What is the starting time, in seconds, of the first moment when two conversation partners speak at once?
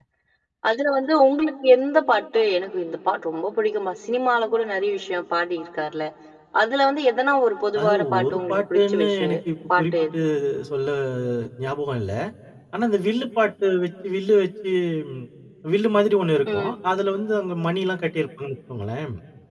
7.8 s

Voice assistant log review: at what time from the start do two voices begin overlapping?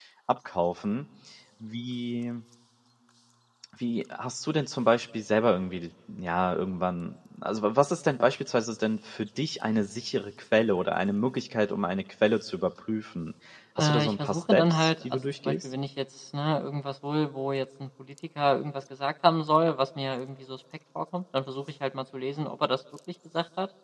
13.8 s

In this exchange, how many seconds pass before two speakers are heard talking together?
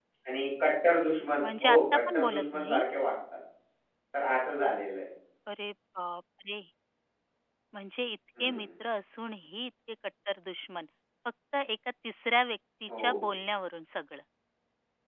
1.4 s

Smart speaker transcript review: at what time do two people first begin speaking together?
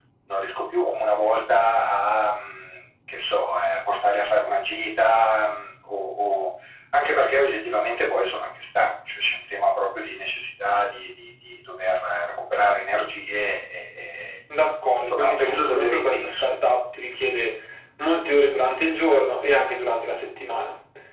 15.1 s

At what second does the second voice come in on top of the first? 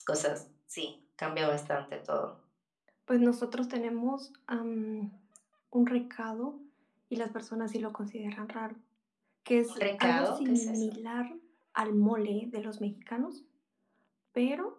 9.7 s

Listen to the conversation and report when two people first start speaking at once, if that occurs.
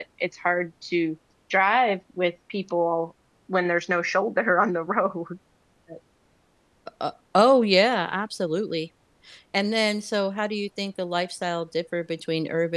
none

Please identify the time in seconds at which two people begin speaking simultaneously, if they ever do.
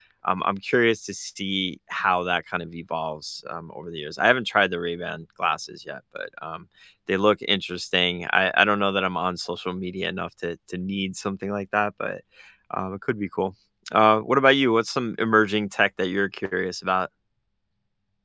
none

